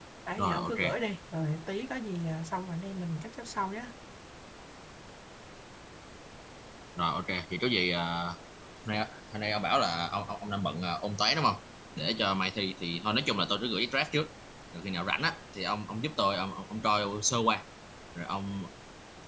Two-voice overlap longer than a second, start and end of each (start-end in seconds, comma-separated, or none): none